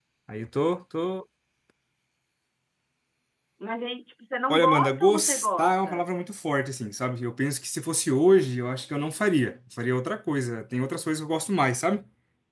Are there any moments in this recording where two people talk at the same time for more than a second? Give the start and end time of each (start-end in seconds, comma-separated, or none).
4.5-6.0